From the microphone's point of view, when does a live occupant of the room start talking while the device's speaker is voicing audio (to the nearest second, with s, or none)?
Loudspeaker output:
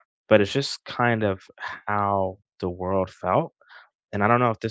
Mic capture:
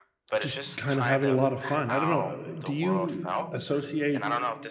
0 s